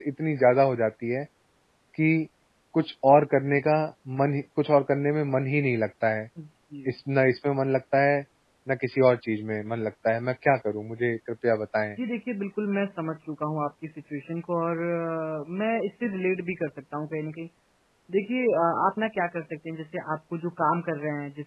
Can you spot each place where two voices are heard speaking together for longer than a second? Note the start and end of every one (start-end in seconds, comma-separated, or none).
none